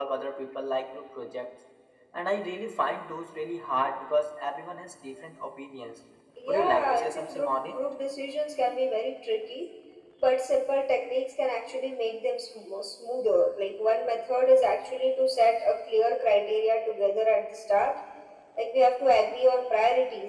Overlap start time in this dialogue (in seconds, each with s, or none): 6.5 s